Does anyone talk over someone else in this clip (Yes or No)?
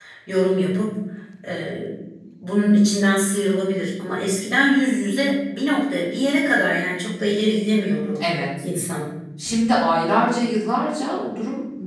No